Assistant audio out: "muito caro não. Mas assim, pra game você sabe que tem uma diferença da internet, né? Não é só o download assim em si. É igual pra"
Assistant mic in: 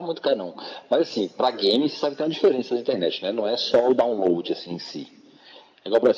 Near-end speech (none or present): none